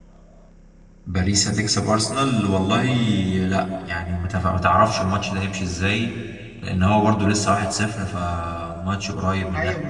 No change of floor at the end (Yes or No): No